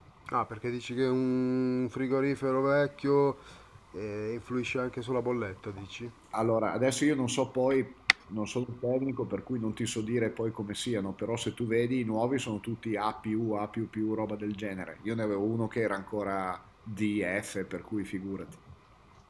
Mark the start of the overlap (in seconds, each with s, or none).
none